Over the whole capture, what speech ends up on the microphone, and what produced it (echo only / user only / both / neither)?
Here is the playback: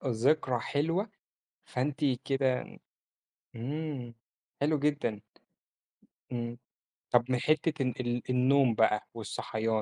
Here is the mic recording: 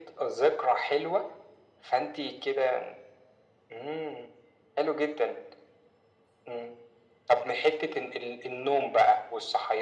echo only